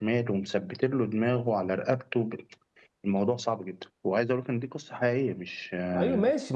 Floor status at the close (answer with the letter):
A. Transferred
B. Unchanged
A